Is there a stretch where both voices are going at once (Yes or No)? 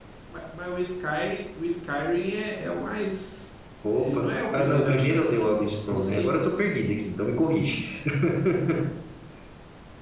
Yes